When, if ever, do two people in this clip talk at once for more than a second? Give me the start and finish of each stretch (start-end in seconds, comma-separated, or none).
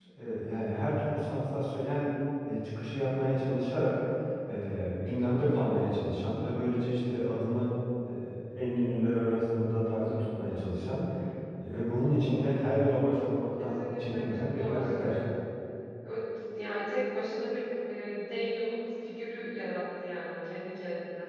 13.6-15.2